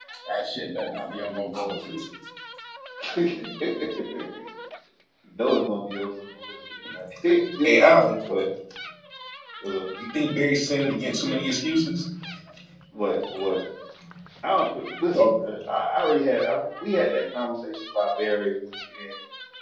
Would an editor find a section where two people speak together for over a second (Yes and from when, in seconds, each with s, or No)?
No